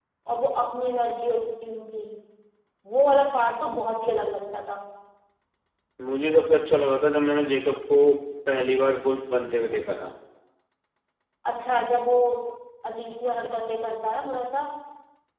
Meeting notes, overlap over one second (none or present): none